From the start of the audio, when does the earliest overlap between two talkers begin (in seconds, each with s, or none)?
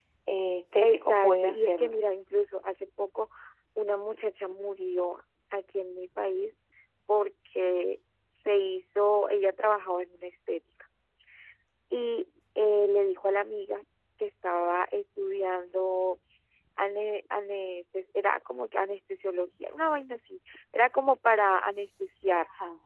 0.8 s